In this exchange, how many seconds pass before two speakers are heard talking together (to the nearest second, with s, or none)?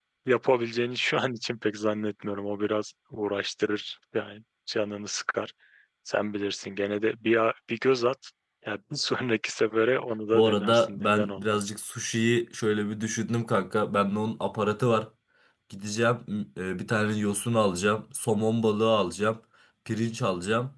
10 s